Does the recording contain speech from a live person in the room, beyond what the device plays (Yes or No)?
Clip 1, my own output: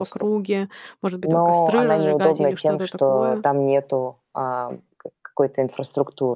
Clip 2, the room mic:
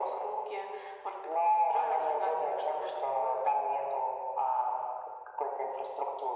No